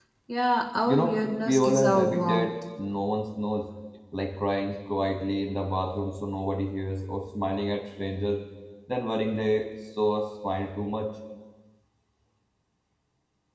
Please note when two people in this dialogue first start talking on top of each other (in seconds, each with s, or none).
0.9 s